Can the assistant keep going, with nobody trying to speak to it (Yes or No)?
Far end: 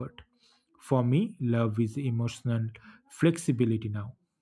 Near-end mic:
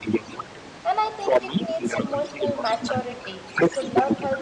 No